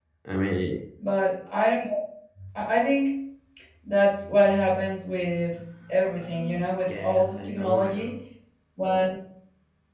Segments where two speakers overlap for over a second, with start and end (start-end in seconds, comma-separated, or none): 6.9-8.1